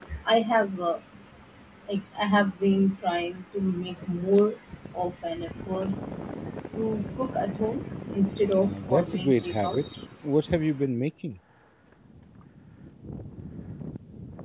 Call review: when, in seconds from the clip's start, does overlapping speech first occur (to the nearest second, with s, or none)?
9 s